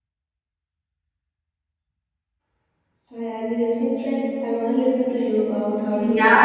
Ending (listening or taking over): taking over